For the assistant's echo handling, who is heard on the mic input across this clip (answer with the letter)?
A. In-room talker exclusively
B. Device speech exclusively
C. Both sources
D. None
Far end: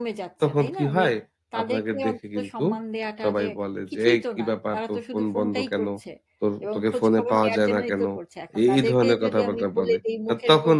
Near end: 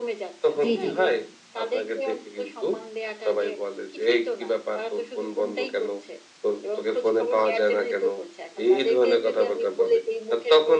C